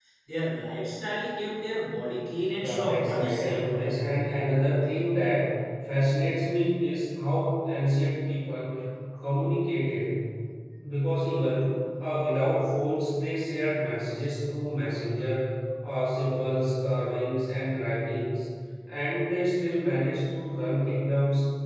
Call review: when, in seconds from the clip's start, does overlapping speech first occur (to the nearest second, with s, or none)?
3 s